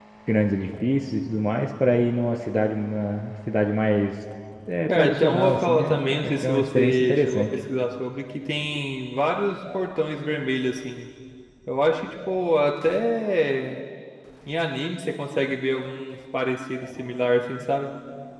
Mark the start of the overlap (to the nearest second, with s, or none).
5 s